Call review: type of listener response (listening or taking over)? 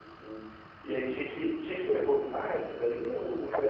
taking over